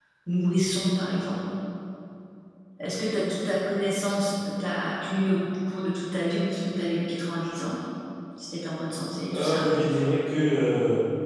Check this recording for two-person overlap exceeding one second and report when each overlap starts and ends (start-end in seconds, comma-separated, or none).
none